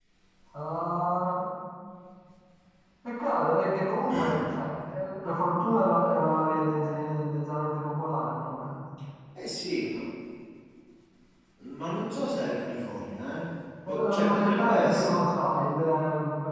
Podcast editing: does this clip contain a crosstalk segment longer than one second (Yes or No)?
Yes